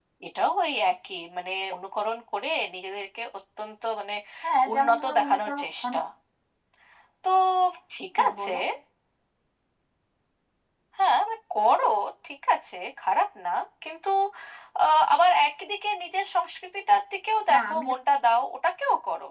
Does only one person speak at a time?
No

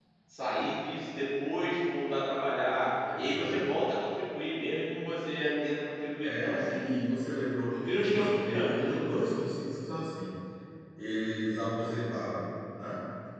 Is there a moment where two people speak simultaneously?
Yes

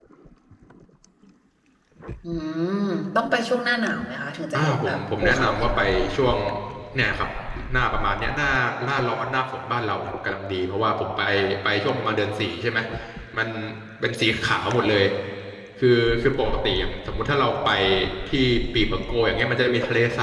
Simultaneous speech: Yes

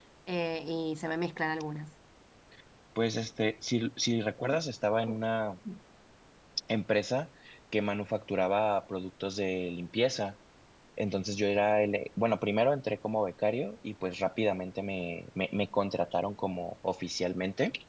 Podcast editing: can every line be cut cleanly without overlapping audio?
Yes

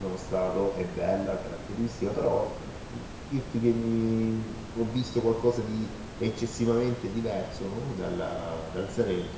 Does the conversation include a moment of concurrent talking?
No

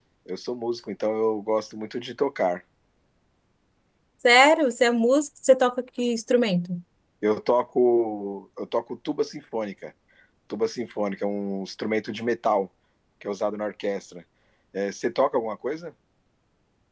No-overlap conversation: Yes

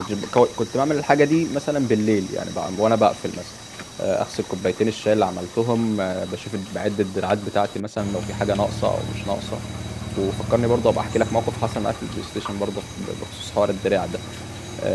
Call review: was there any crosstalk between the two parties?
No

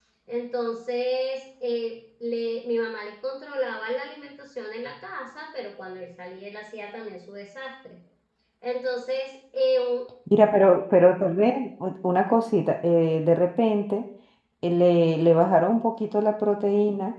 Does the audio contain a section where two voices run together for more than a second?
No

